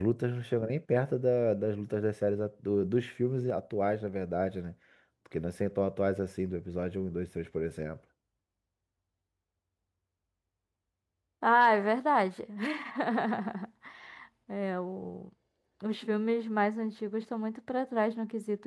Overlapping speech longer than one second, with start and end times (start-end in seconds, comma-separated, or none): none